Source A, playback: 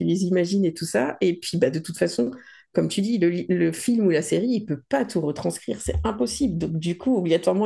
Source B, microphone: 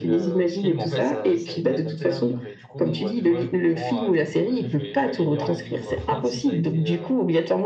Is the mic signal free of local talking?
No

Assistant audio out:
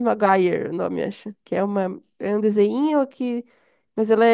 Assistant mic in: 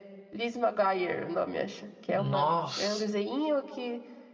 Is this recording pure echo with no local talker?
No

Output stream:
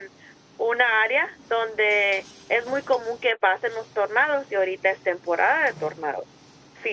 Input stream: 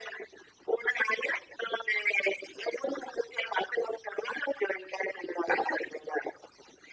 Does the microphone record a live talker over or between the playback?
No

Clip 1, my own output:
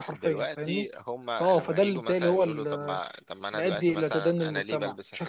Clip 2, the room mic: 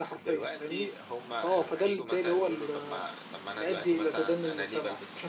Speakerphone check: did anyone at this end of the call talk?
No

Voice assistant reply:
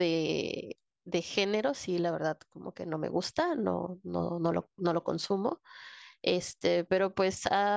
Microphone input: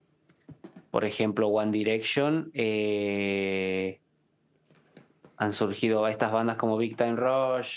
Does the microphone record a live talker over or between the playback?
Yes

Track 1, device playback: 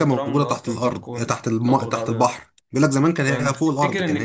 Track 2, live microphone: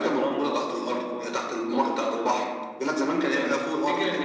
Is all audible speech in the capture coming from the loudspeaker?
Yes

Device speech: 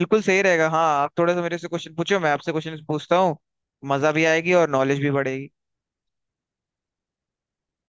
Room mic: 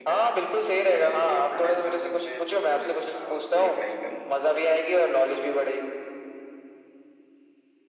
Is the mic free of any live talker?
No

